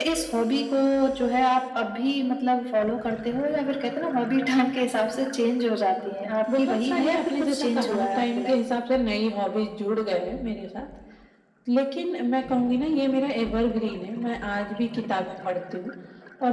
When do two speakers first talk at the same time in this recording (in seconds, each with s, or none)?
6.5 s